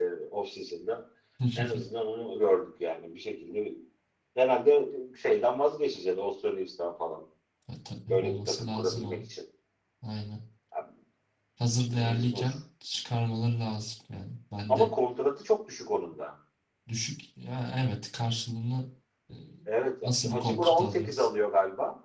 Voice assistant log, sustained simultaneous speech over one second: present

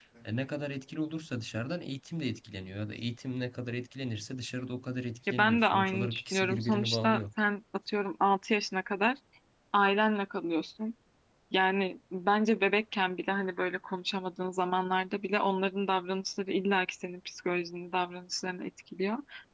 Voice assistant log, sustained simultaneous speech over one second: present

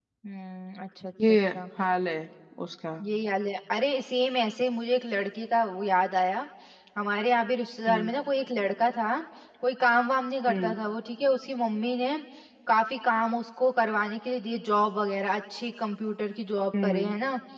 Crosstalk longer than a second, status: none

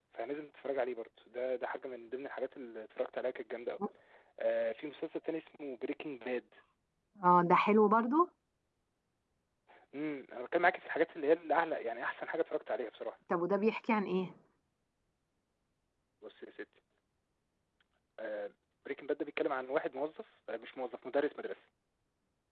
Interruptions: none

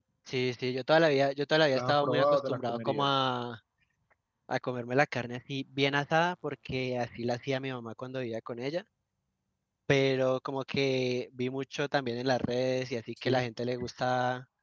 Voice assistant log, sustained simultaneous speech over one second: present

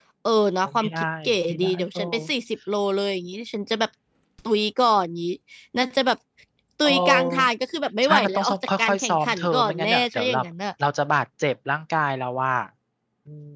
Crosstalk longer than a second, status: present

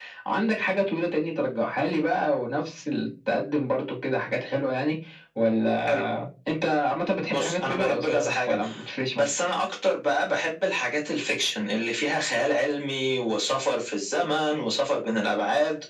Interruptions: present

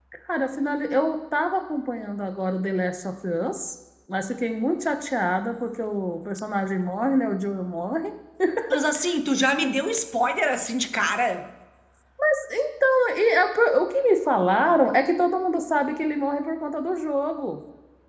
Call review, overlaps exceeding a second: none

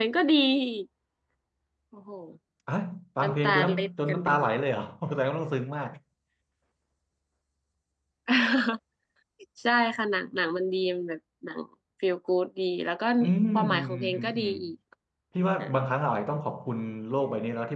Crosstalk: present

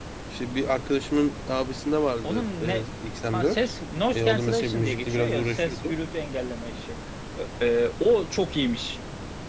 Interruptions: present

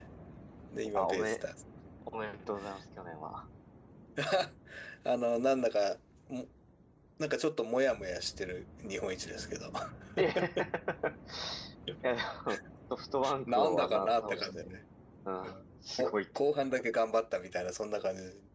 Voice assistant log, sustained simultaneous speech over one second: present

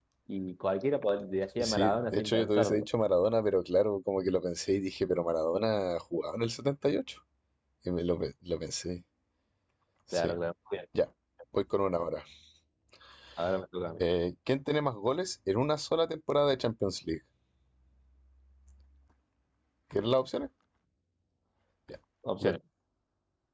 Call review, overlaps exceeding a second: present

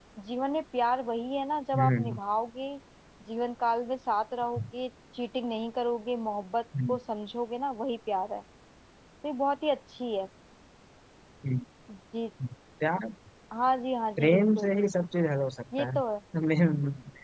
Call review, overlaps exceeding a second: none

